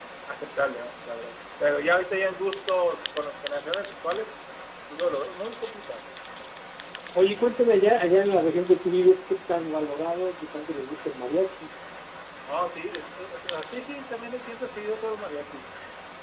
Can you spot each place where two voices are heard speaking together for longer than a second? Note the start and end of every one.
none

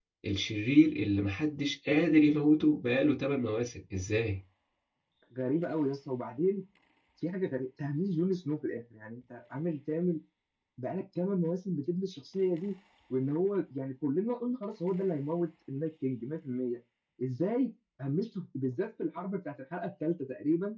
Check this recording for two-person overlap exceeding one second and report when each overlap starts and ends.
none

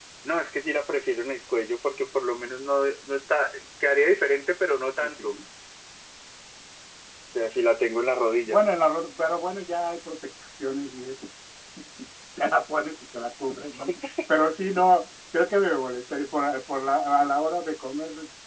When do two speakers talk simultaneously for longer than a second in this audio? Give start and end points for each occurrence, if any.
none

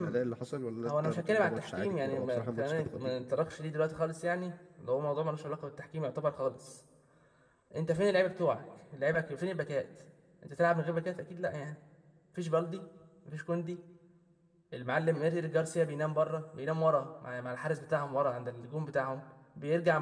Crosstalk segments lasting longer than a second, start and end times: 0.8-3.4

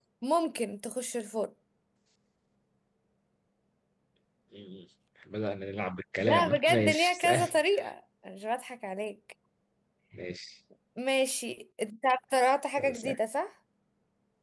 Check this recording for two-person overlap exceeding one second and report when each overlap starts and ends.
6.2-7.5

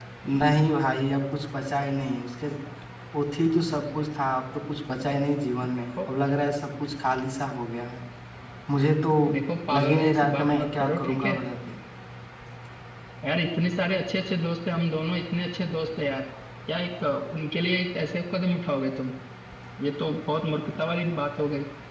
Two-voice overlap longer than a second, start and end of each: 9.7-11.4

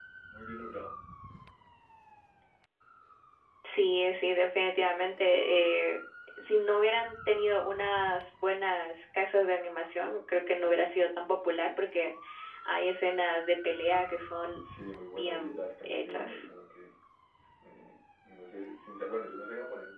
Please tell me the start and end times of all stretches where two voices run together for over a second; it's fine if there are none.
15.2-16.5

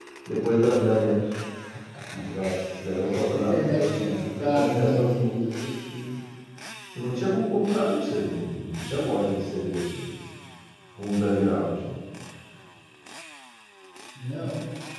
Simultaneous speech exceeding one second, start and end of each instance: 3.3-5.1

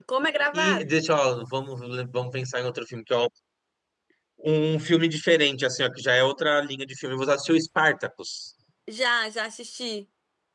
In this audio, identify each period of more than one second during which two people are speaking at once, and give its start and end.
none

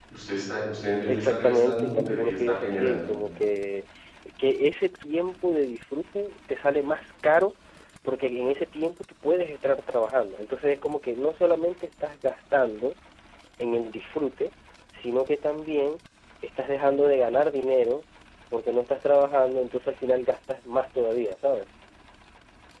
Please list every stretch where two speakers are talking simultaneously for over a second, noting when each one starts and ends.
1.1-3.0

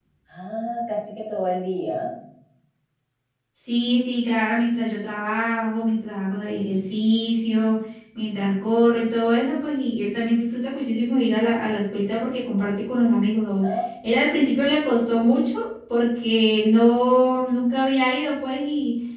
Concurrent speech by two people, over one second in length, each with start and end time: none

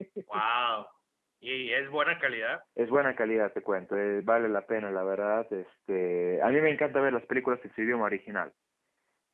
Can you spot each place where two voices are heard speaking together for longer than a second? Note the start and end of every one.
none

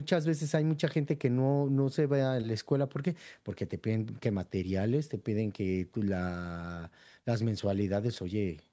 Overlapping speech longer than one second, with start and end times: none

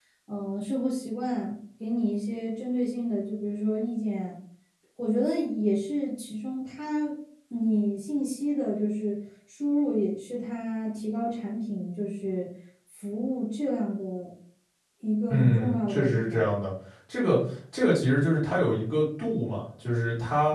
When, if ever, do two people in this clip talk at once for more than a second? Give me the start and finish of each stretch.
15.3-16.5

